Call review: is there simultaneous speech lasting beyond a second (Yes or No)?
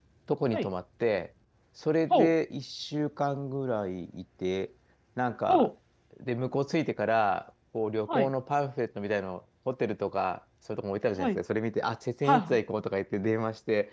No